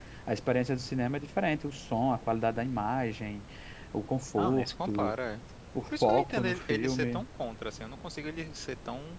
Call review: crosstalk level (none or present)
present